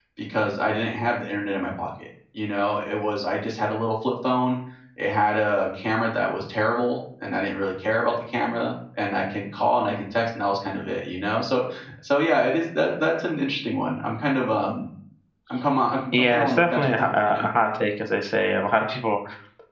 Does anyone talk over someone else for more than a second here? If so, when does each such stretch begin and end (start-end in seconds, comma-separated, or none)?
16.1-17.5